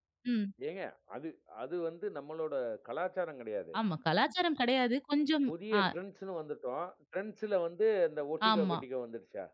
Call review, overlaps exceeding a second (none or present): none